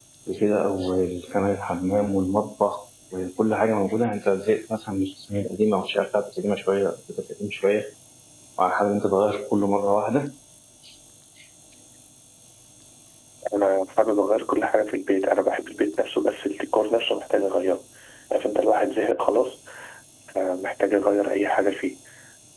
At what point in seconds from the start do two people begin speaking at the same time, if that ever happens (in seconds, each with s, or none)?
none